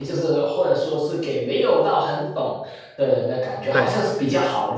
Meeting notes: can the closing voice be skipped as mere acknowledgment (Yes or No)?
Yes